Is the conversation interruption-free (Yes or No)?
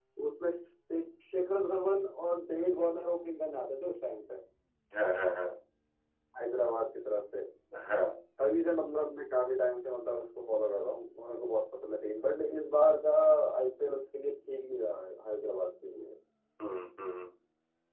Yes